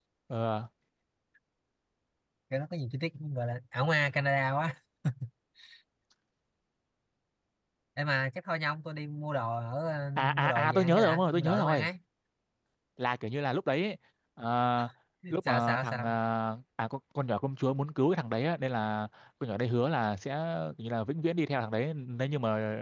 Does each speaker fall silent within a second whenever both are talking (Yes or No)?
No